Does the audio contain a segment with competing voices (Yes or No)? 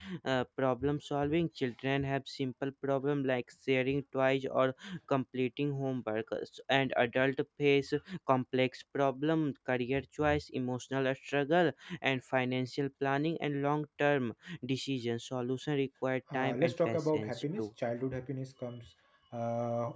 Yes